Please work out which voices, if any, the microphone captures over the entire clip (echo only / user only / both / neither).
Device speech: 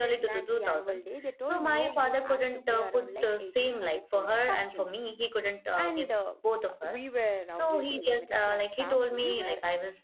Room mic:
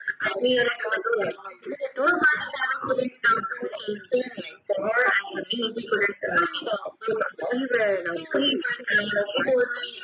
echo only